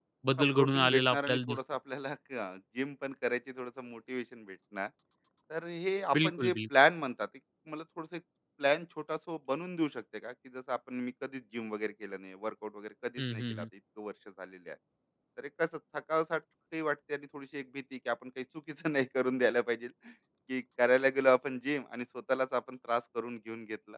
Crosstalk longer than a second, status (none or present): present